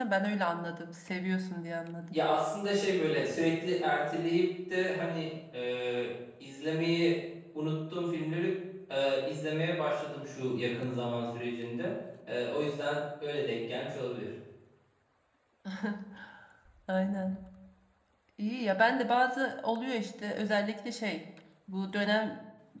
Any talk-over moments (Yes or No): No